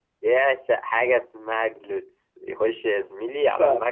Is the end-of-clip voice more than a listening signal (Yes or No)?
No